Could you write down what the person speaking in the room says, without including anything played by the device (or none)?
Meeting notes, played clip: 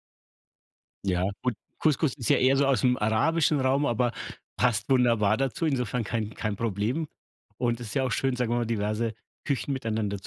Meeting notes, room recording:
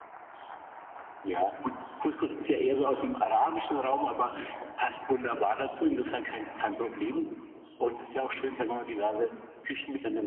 none